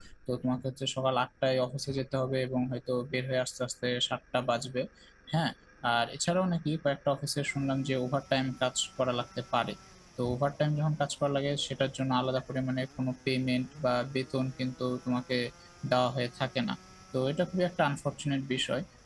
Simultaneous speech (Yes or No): No